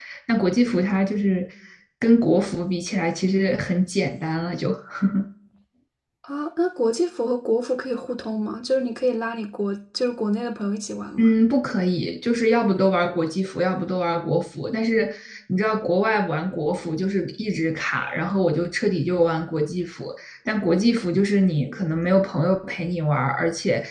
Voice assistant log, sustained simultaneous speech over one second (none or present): none